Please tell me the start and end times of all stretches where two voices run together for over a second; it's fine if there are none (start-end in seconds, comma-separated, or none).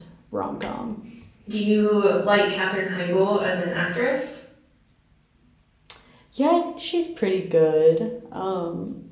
none